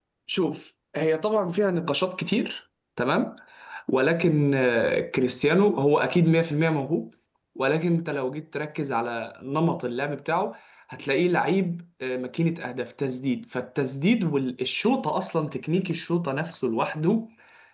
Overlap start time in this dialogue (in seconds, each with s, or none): none